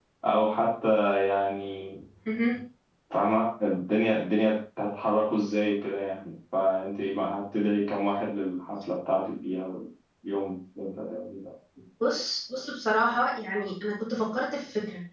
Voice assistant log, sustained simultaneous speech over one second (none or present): none